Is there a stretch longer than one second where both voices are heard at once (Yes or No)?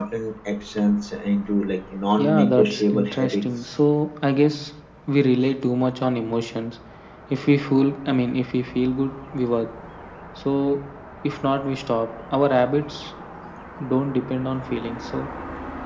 Yes